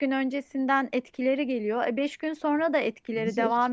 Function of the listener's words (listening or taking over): listening